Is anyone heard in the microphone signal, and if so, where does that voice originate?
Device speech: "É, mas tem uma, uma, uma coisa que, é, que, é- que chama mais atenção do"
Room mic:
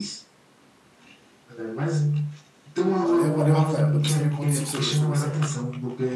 both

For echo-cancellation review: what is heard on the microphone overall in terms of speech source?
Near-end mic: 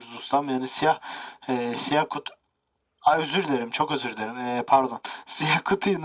echo only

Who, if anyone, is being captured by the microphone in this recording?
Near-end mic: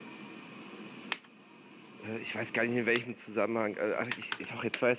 user only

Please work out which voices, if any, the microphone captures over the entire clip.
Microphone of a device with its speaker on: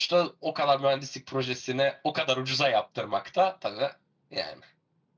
user only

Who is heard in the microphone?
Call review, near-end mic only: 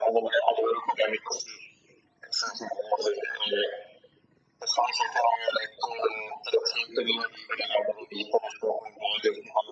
echo only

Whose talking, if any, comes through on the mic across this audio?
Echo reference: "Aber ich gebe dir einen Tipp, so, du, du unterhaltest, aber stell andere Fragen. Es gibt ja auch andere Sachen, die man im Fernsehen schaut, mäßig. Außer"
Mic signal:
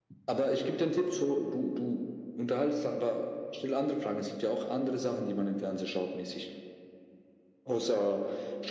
echo only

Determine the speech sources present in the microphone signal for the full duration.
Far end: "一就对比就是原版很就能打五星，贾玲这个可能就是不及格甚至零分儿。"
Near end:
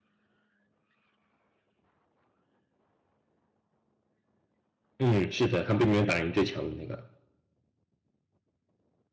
user only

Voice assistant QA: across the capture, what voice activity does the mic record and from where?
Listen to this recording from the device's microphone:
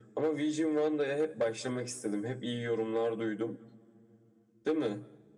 echo only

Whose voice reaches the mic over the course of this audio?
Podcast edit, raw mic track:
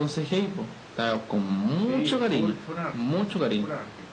both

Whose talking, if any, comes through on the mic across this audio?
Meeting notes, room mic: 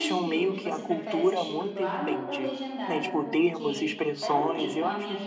both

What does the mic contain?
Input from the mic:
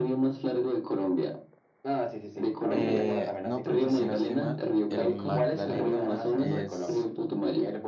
both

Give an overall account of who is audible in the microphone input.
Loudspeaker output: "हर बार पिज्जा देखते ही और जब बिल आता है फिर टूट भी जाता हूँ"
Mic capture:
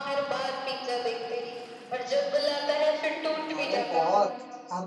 both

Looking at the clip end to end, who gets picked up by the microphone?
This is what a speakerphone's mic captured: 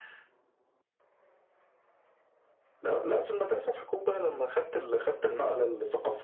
echo only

